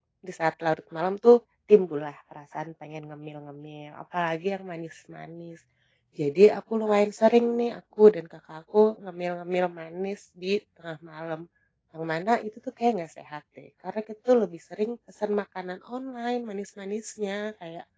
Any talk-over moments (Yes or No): No